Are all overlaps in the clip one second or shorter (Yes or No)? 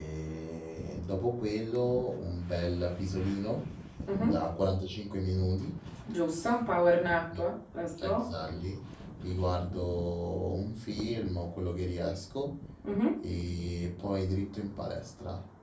Yes